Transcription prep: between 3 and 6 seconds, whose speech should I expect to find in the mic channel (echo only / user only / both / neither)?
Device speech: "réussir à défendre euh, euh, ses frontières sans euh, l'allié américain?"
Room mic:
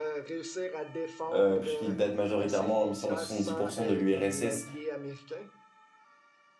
both